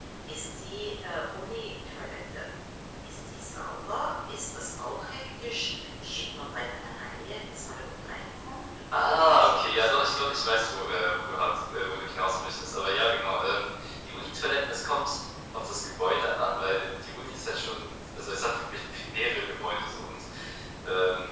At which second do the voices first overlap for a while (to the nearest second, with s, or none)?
9 s